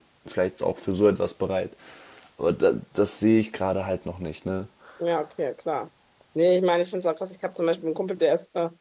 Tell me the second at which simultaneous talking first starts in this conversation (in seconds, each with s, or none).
none